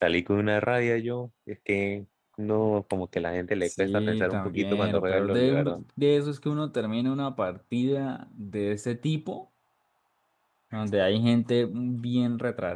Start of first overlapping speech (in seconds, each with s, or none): 3.6 s